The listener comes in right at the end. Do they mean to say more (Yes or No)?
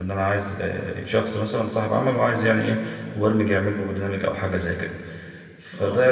No